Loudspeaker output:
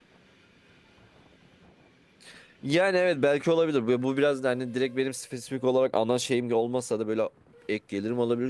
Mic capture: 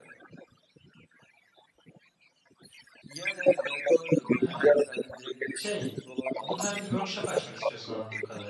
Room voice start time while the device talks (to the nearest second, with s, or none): 4 s